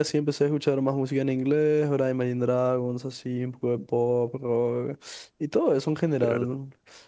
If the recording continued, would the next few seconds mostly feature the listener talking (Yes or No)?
No